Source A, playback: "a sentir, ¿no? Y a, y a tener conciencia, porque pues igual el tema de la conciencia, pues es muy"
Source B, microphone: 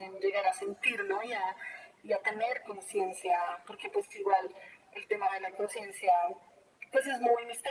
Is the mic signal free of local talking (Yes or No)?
Yes